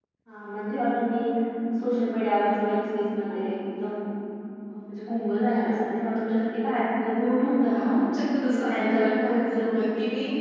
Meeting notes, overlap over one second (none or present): present